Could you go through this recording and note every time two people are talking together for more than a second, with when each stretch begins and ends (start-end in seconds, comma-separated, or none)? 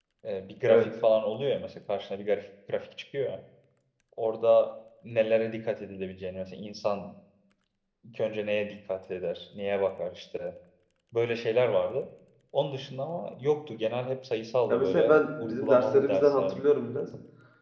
14.7-16.6